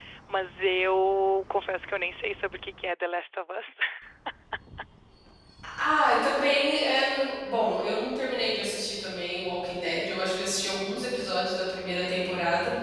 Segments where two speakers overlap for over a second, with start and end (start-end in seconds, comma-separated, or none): none